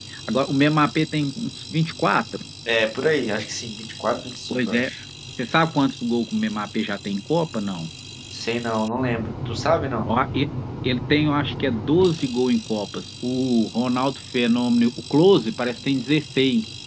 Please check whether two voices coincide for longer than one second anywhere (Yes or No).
No